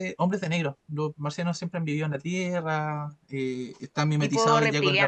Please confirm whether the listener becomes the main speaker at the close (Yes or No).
No